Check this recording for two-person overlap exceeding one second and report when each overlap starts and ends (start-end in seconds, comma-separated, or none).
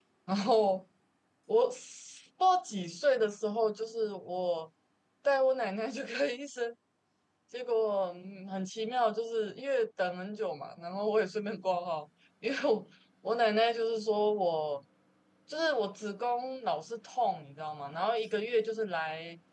none